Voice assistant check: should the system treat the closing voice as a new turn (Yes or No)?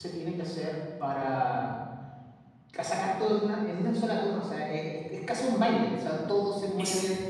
No